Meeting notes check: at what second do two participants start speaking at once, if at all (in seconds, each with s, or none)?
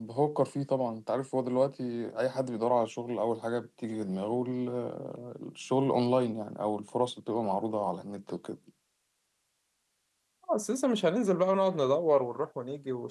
none